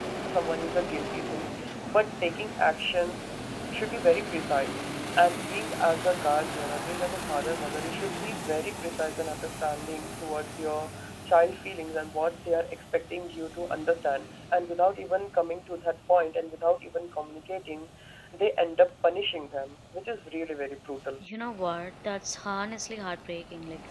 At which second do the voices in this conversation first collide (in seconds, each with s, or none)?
none